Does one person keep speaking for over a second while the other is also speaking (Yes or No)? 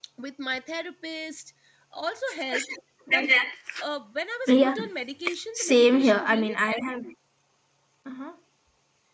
Yes